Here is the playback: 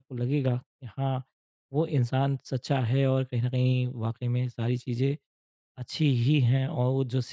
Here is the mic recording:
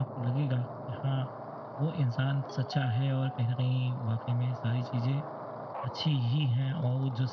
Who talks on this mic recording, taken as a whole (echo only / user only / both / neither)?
echo only